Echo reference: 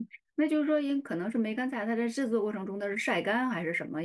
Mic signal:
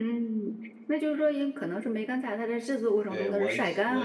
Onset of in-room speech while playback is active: 3 s

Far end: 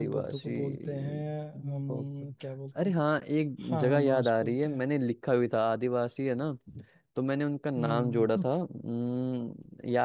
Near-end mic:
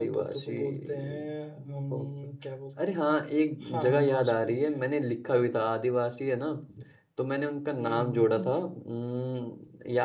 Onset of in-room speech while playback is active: none

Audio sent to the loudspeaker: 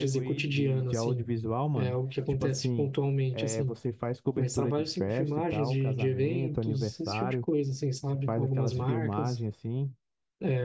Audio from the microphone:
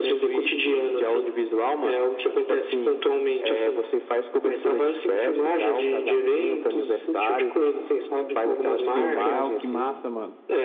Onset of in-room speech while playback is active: 9 s

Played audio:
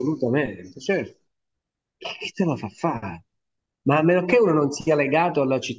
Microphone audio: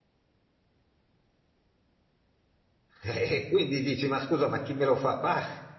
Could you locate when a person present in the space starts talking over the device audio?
3 s

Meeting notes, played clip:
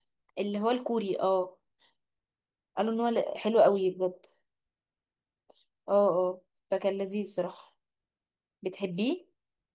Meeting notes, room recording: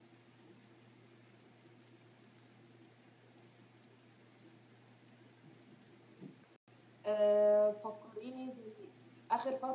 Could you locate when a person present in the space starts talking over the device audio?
7 s

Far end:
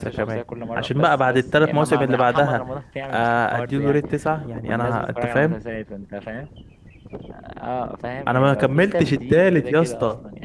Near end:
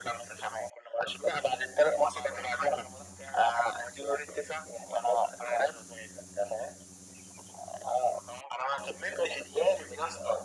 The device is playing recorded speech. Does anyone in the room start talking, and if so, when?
none

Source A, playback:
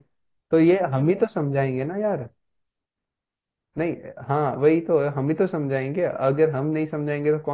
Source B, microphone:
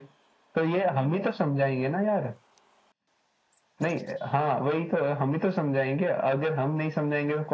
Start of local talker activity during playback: none

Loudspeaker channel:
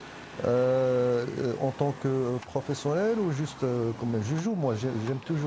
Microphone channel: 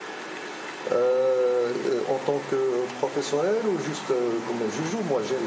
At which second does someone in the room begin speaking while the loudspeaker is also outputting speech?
none

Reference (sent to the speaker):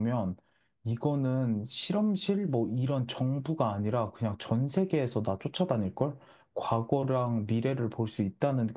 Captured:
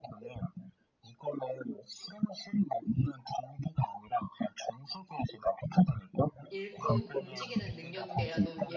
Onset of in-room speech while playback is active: 6 s

